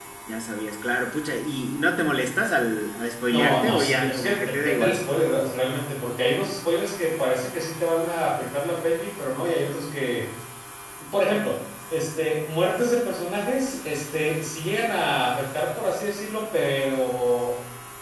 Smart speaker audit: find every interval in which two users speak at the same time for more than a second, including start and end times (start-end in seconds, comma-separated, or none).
3.3-5.0